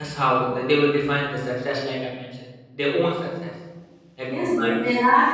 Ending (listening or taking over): taking over